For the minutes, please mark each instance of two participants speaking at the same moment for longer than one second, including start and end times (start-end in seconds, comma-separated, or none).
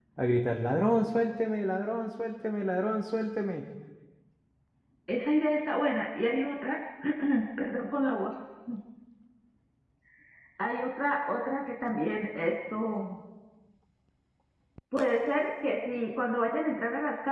none